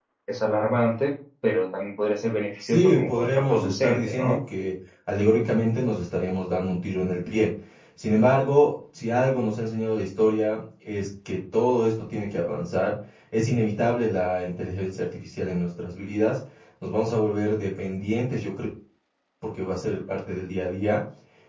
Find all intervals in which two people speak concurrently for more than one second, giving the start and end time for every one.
2.6-4.4

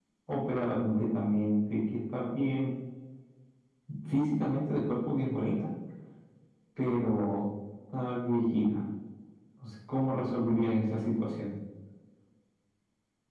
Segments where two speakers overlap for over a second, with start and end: none

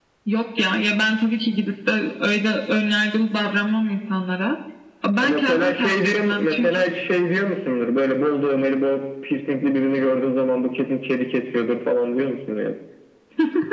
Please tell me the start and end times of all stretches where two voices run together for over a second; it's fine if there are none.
5.2-6.9

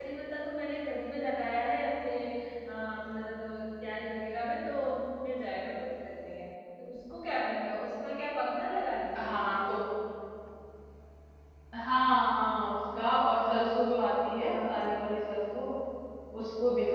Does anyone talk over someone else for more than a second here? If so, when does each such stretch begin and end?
none

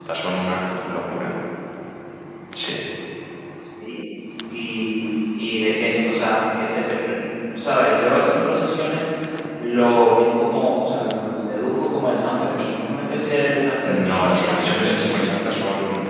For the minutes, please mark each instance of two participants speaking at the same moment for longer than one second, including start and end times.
13.8-15.3

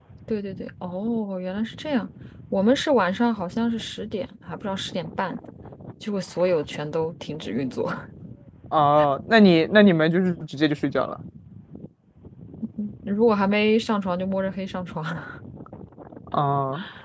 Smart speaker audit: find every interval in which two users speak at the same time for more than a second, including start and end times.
none

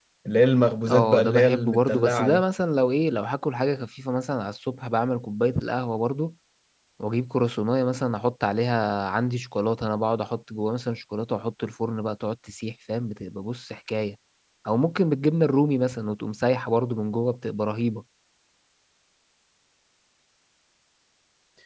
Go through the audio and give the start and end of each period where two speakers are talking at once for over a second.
0.9-2.4

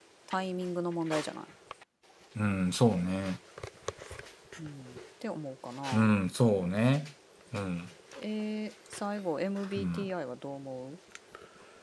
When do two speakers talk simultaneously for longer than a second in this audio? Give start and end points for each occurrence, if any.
none

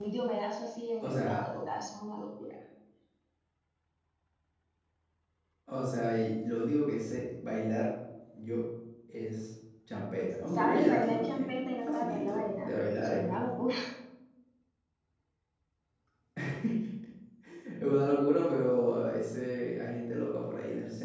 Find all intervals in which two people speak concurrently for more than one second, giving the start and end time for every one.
10.5-13.4

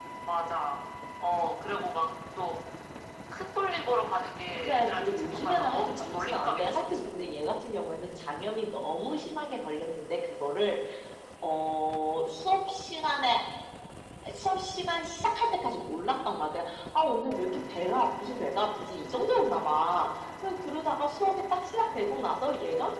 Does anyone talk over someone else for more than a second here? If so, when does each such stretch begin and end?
4.6-7.1

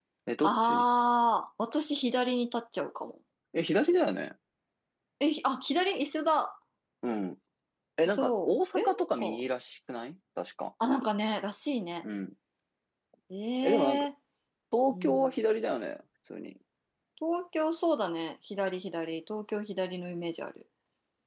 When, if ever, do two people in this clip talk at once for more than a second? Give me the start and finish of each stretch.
8.1-9.4

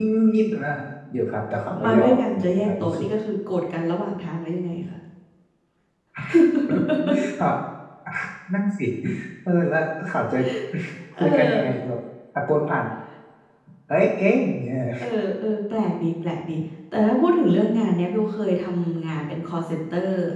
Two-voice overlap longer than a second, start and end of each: 1.8-3.1

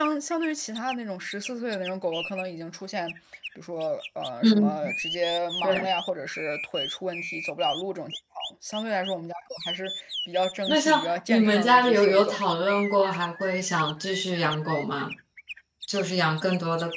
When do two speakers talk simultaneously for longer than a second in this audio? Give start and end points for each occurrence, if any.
10.7-12.4

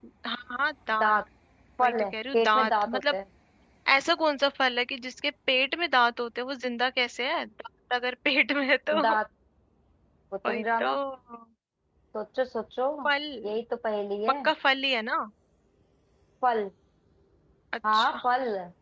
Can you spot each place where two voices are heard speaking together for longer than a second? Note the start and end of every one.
1.8-3.1

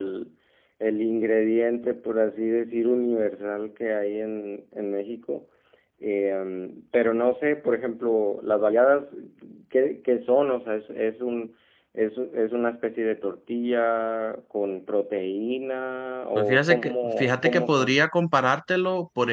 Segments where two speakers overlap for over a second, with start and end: 16.4-18.0

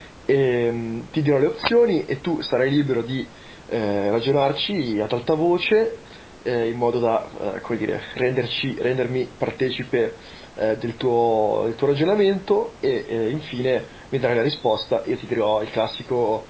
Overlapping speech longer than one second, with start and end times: none

